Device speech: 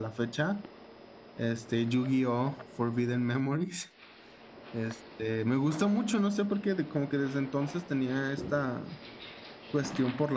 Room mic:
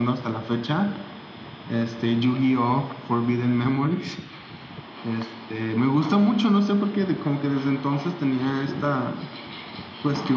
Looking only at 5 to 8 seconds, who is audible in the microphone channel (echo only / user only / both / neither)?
echo only